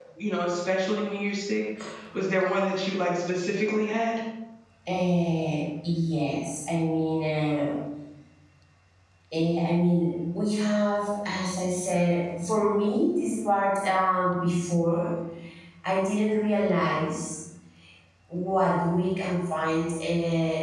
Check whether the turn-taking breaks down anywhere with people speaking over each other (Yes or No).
No